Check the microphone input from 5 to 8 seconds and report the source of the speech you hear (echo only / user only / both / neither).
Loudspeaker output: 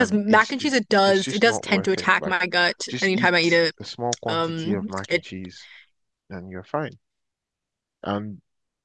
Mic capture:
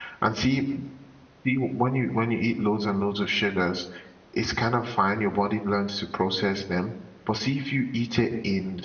user only